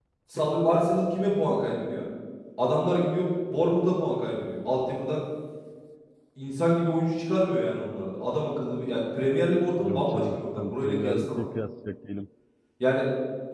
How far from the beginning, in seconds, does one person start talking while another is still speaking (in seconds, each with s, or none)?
9.8 s